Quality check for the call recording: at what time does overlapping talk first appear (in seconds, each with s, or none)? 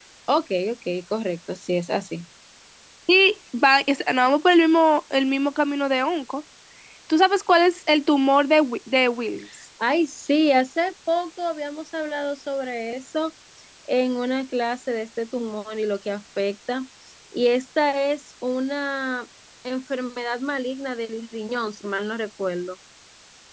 none